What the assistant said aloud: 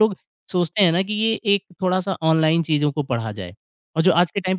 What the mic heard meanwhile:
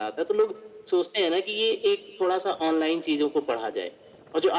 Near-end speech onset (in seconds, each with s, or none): none